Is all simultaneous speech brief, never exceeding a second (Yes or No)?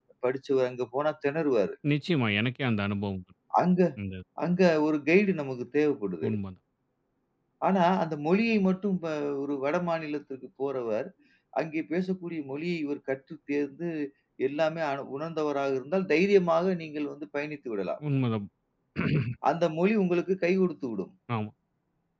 Yes